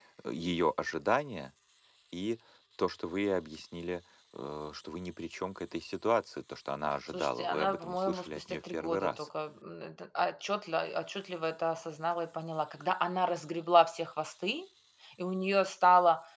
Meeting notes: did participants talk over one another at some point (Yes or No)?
Yes